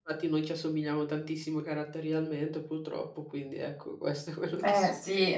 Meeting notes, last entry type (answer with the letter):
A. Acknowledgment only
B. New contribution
B